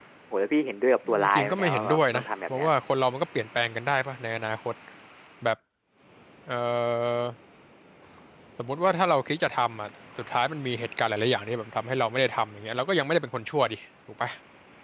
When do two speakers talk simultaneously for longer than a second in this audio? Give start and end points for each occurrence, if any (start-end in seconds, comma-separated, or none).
1.1-2.7